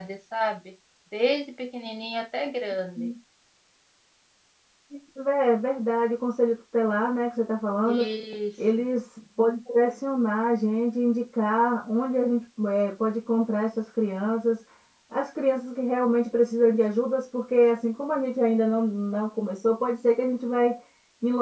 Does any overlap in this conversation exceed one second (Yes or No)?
No